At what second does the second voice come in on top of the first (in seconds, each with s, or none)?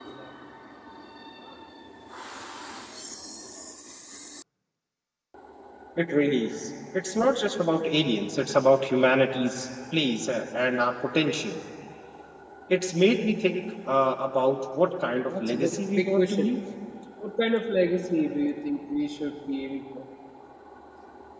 15.3 s